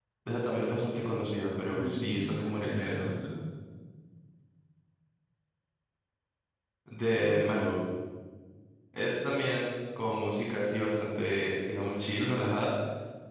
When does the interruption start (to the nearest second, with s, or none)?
2 s